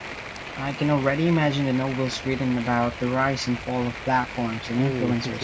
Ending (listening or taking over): taking over